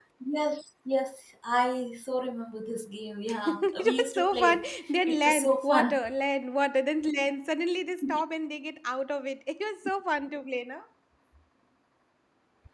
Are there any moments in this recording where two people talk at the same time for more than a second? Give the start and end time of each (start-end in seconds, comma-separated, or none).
3.5-6.0